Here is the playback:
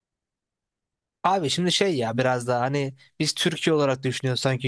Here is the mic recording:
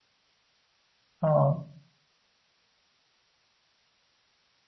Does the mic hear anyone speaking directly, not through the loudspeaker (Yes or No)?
Yes